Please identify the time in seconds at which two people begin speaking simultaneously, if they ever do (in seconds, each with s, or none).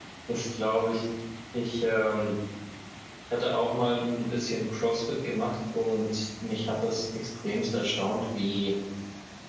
none